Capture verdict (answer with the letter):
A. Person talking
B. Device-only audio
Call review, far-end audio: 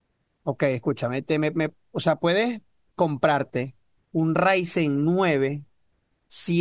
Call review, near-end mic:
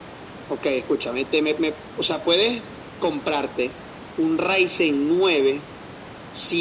B